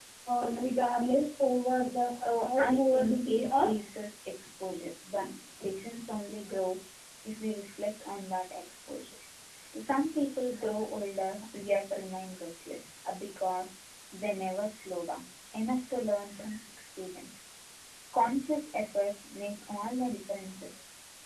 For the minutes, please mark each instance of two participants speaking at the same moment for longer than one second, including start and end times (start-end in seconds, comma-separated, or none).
2.4-3.7